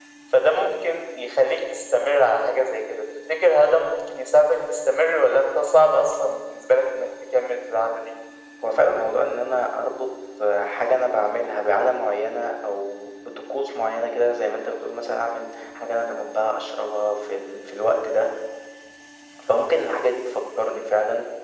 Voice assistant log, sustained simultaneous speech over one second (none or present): none